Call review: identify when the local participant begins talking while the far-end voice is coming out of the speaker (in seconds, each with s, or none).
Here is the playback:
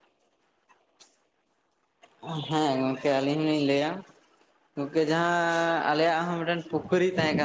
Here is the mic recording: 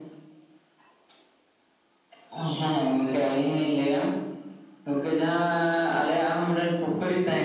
none